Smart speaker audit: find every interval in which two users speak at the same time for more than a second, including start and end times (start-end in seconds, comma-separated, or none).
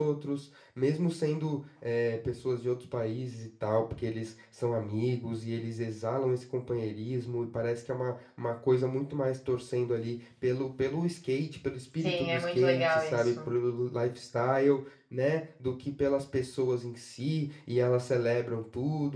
12.0-13.5